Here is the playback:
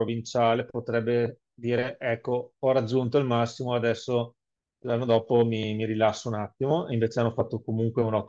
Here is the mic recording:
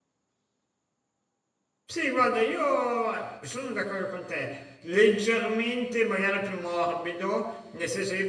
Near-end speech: present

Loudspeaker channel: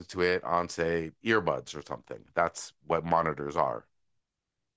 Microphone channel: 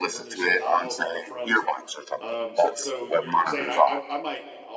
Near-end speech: present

